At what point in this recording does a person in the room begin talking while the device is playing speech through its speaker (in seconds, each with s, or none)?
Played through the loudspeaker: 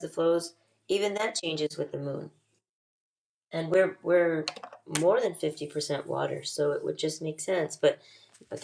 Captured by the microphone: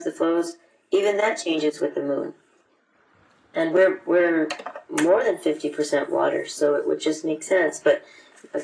none